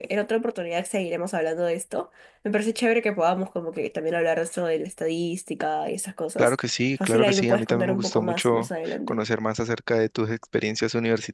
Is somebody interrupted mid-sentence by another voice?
Yes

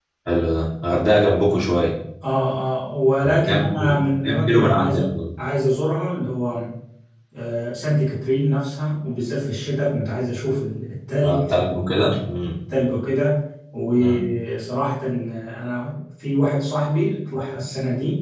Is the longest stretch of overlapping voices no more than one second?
No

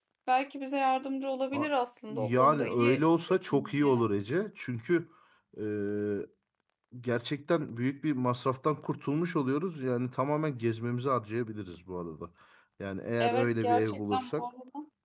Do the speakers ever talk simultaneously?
Yes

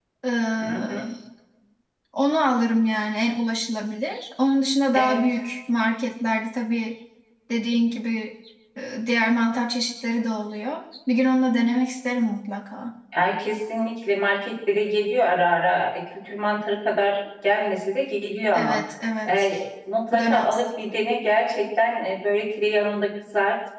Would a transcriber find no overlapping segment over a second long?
Yes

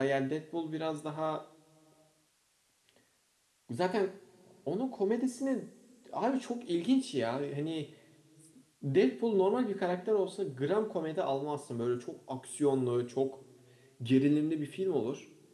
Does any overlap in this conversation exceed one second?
No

